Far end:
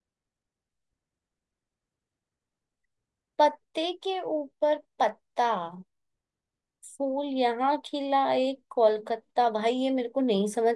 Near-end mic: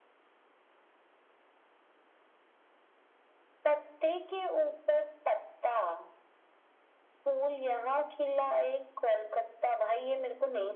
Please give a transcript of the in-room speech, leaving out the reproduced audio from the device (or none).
none